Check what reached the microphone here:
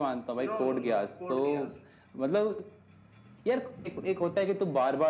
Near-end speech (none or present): present